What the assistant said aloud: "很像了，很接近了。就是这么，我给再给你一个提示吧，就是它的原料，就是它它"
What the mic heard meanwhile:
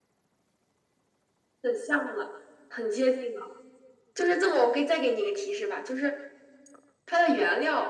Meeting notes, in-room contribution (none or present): none